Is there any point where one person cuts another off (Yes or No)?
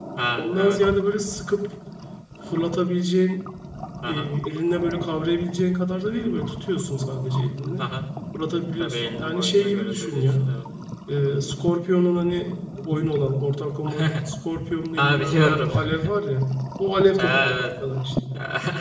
Yes